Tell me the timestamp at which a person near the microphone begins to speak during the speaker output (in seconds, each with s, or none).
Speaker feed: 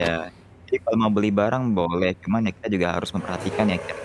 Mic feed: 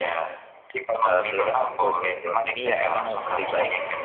1.0 s